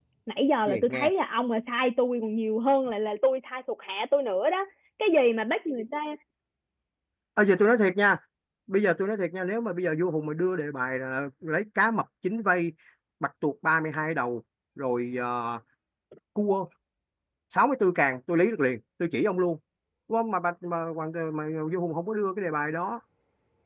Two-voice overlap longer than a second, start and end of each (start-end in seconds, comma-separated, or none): none